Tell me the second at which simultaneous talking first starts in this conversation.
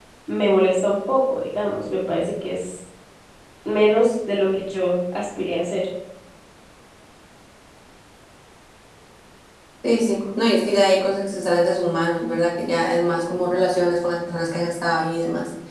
none

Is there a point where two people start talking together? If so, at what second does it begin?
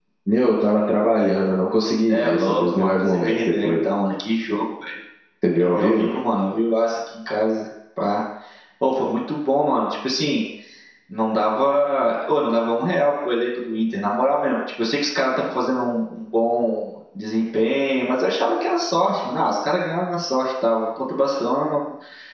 2.1 s

